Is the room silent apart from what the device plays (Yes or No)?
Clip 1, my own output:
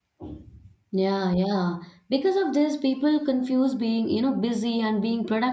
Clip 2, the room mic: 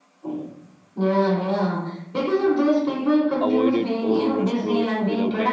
No